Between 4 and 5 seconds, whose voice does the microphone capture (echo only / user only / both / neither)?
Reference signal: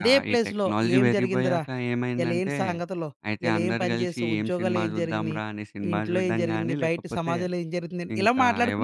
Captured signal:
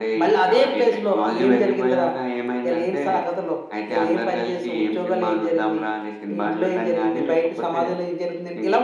echo only